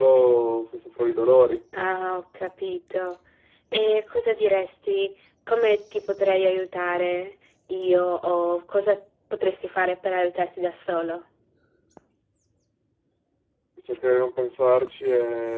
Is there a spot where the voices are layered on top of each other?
No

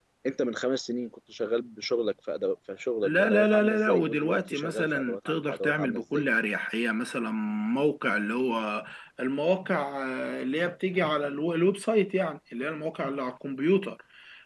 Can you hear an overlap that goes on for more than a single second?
Yes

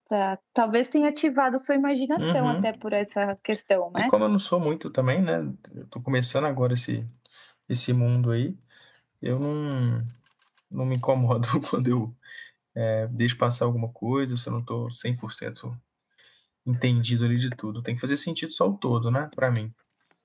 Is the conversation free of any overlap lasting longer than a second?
Yes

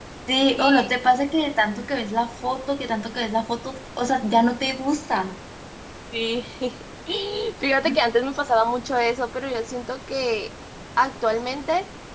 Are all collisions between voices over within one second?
Yes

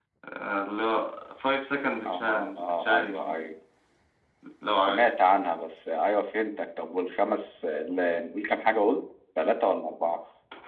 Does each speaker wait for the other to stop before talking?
No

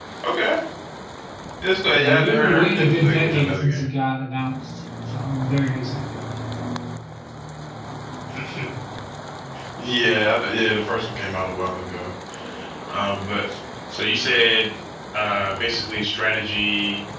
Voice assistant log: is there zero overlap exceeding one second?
No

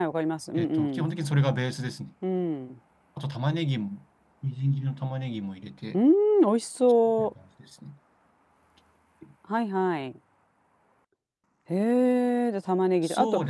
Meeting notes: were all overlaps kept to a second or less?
Yes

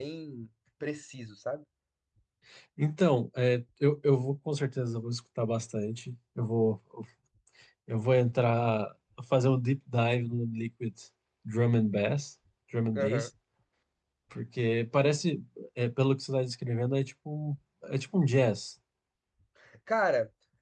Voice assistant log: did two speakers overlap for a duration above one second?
No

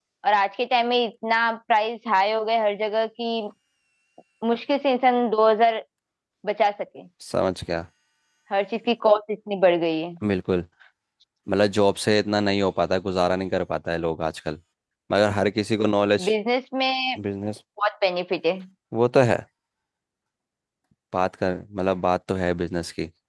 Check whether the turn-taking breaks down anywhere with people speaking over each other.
No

